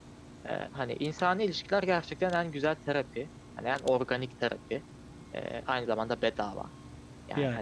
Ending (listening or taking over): listening